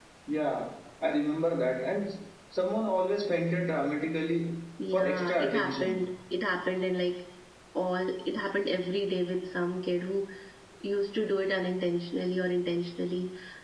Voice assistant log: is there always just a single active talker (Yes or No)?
No